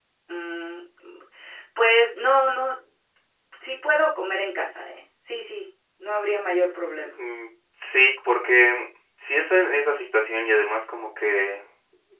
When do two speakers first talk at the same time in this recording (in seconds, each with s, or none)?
none